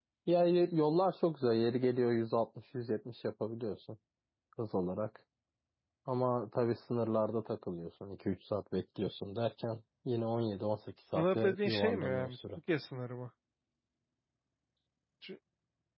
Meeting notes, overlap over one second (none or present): present